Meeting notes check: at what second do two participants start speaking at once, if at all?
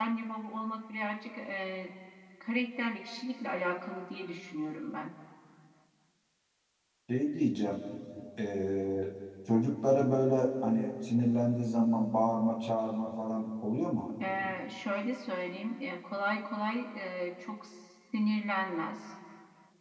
none

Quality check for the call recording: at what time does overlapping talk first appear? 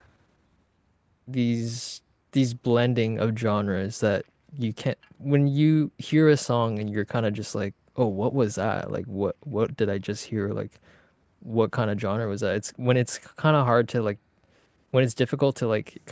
none

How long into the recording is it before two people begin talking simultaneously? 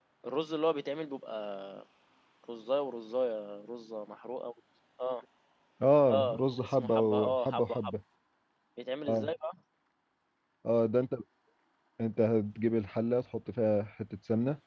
6.1 s

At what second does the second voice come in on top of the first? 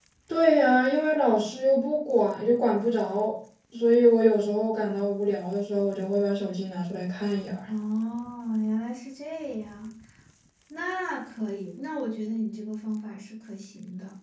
none

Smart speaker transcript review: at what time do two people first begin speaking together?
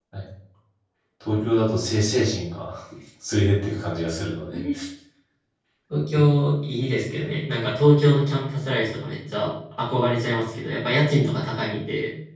none

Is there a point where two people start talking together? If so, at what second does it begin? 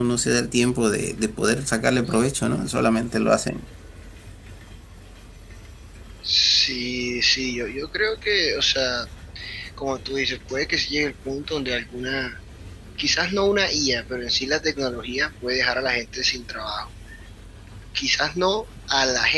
none

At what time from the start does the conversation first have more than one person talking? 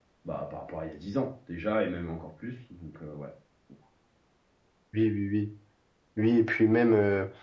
none

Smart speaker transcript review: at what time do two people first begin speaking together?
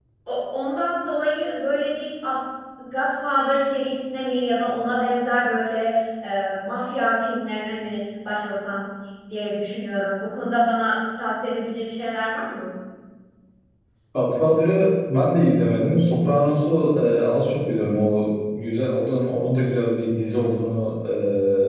none

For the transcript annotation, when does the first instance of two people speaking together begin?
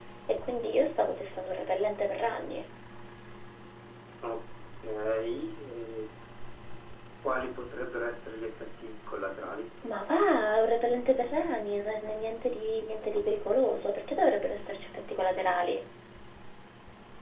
none

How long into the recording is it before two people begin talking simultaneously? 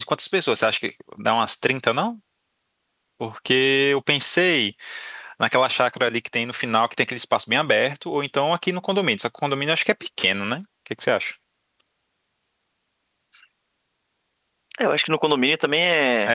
none

